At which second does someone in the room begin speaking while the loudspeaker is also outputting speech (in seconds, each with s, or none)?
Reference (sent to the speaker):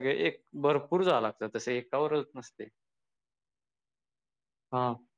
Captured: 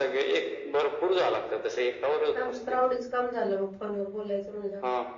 2.4 s